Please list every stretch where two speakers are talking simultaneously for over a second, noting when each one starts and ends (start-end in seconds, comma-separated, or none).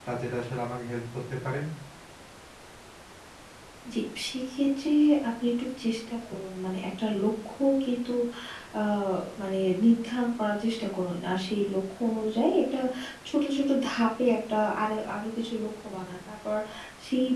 none